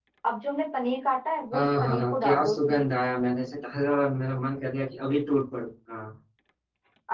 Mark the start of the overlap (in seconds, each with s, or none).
1.5 s